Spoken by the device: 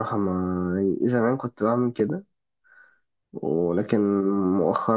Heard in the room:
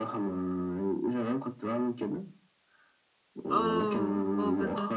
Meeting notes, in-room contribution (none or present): present